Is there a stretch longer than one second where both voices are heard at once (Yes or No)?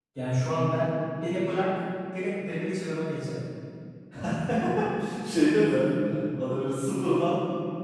No